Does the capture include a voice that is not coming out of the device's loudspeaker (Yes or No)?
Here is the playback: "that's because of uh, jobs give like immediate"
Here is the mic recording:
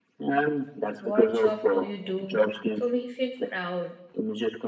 Yes